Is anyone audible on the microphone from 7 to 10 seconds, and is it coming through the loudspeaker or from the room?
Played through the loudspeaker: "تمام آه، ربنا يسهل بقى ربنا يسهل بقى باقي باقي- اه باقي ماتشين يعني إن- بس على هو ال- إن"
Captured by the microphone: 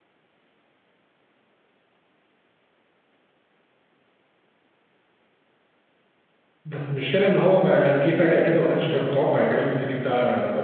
user only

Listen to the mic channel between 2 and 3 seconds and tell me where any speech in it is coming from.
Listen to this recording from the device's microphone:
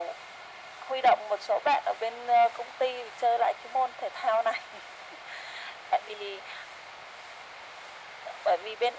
echo only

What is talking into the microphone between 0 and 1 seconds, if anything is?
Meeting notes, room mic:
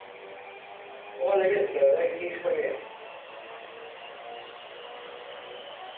neither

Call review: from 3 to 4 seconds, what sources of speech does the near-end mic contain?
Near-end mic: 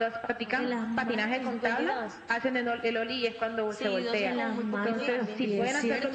both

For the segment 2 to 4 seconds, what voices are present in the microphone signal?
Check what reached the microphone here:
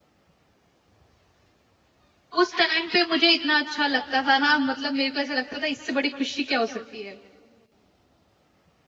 user only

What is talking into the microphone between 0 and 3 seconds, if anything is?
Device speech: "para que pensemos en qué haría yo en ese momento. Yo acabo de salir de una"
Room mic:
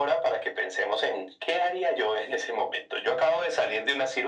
echo only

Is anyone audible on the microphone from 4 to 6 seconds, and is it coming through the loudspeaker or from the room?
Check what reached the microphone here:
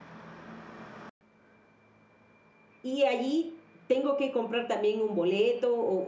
user only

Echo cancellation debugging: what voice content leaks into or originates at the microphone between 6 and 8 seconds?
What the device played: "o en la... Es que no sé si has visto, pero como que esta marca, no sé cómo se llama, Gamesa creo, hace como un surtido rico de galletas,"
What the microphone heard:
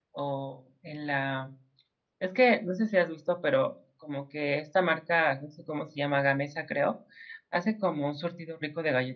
echo only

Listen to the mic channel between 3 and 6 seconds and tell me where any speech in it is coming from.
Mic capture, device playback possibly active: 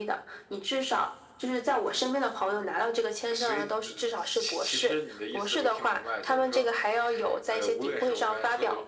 echo only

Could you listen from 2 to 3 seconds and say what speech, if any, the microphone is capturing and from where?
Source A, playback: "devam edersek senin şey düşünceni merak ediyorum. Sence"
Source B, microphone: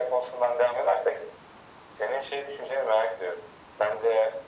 echo only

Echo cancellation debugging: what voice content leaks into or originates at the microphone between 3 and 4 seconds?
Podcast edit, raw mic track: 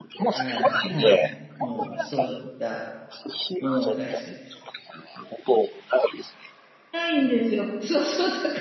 both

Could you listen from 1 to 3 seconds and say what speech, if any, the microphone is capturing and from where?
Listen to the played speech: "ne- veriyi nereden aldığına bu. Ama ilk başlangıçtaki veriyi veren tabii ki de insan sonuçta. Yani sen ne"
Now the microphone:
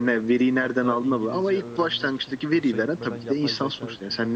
both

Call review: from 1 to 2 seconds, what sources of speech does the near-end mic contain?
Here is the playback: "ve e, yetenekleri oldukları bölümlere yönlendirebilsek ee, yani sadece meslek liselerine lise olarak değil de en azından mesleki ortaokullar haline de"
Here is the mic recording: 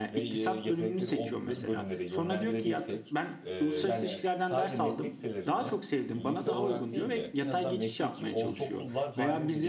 both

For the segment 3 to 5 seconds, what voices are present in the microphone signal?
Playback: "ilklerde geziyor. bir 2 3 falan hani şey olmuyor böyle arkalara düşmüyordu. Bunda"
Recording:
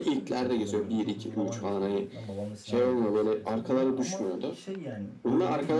both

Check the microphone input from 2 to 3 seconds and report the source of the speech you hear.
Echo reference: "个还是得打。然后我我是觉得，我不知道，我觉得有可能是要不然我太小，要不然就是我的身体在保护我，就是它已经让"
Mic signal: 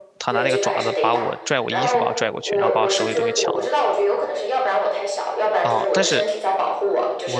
both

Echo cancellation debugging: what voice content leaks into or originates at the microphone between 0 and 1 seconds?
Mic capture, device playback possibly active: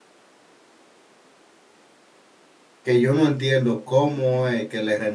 neither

